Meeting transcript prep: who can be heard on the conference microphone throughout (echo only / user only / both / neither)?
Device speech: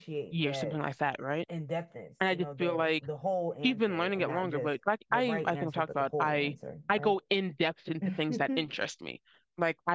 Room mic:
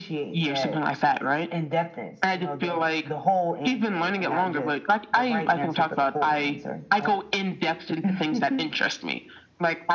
echo only